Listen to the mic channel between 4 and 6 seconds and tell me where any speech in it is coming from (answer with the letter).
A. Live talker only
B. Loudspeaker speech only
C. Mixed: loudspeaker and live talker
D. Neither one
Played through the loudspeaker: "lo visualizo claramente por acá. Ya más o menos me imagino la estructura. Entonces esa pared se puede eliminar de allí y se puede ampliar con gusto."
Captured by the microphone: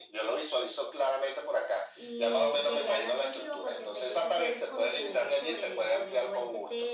C